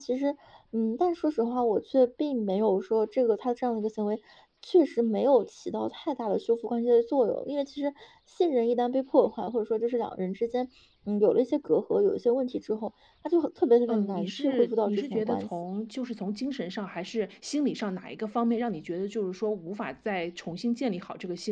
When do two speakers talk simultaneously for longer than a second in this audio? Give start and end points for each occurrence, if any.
13.9-15.5

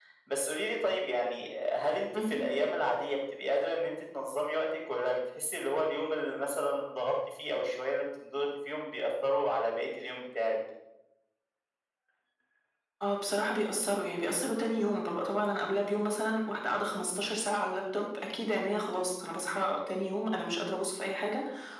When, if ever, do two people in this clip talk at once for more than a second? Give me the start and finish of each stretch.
none

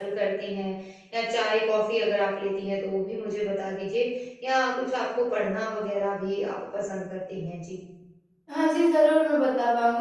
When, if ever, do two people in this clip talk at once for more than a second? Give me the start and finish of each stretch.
none

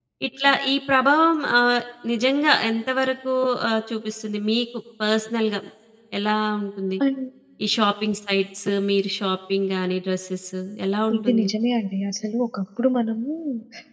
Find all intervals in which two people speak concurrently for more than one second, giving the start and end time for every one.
none

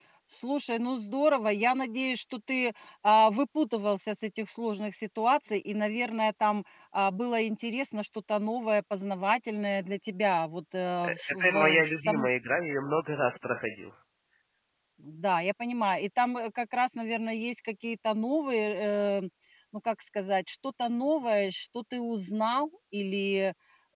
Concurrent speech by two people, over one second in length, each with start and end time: 11.0-12.3

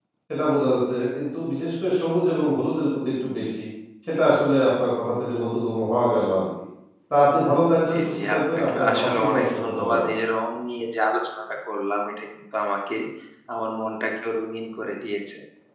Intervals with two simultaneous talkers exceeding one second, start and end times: 7.9-10.1

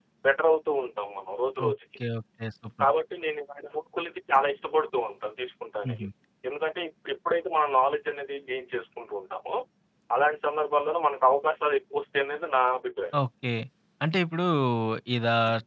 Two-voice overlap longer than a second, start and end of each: none

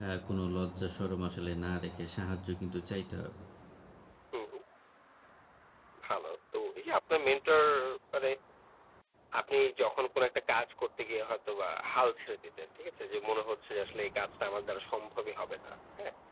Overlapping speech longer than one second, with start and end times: none

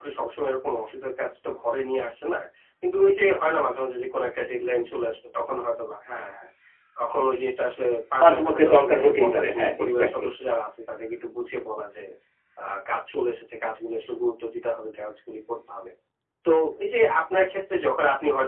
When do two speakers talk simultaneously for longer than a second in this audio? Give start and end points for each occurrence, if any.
8.2-10.3

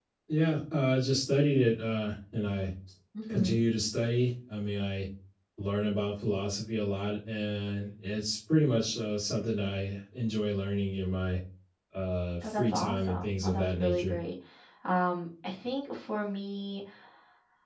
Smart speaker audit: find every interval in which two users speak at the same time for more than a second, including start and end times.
12.4-14.2

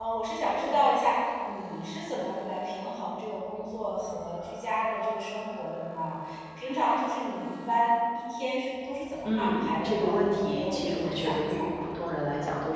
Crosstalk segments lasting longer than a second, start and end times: 9.2-11.9

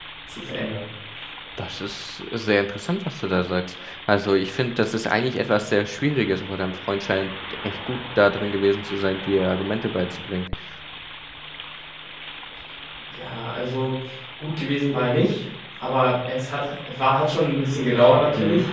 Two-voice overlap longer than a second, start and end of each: none

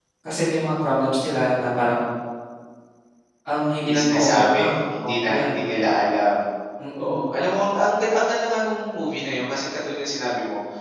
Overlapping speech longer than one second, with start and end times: 3.9-5.6

